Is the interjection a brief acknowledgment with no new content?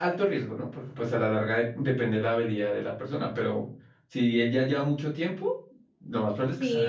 No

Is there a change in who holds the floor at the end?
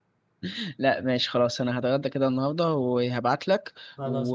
No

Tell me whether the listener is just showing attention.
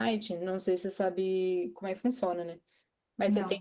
Yes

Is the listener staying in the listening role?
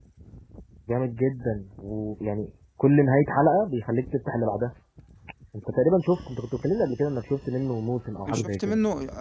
No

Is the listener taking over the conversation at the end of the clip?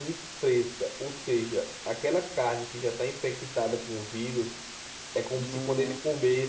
No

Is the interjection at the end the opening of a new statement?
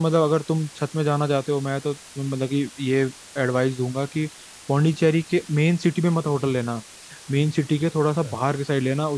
No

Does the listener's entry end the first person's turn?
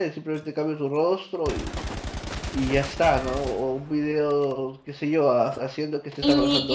Yes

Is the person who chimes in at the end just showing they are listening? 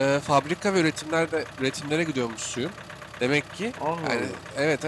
Yes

